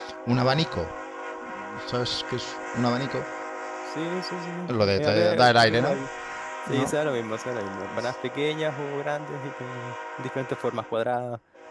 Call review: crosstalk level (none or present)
present